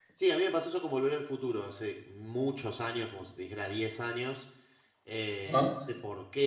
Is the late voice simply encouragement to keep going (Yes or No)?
Yes